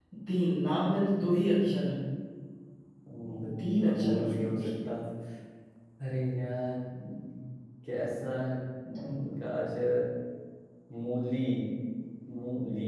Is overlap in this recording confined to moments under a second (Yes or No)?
No